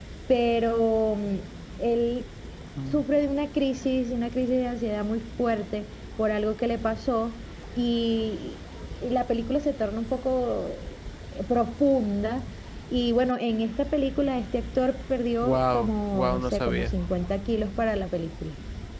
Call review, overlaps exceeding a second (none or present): present